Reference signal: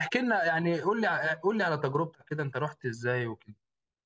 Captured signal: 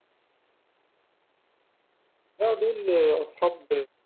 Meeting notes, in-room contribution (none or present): present